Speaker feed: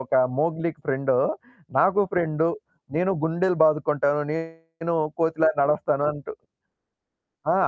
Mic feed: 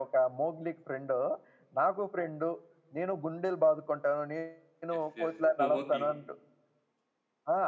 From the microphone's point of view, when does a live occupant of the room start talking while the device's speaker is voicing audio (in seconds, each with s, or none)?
5.0 s